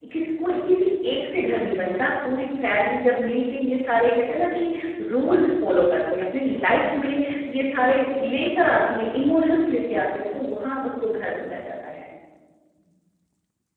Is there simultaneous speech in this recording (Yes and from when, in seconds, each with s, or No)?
No